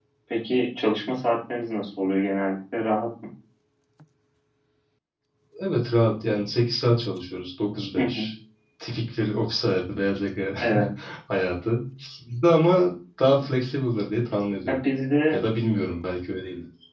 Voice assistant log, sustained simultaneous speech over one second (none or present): none